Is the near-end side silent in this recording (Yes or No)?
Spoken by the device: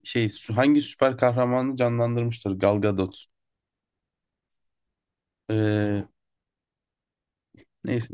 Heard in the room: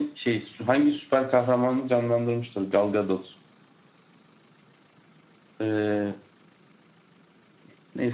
Yes